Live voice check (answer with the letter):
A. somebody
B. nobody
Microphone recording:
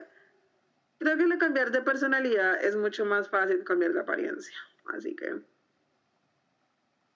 B